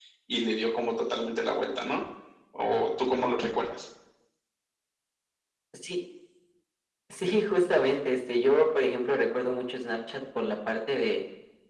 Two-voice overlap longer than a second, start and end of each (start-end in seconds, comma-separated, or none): none